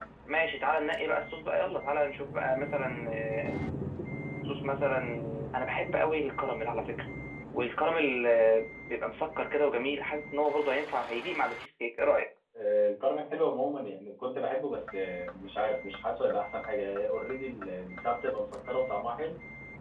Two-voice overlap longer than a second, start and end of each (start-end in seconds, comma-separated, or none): none